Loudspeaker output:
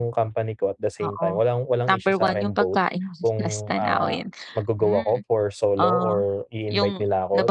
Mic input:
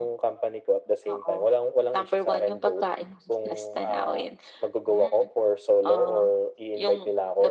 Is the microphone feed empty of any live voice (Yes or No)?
Yes